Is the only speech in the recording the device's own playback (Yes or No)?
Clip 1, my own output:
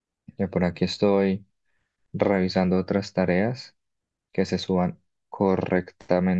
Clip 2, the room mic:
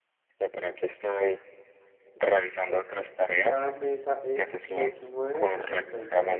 No